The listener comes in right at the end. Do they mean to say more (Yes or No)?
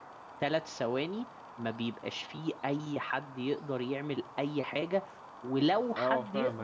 No